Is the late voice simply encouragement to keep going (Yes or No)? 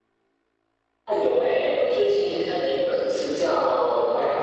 Yes